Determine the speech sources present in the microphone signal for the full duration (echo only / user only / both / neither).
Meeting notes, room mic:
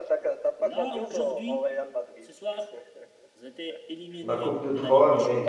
both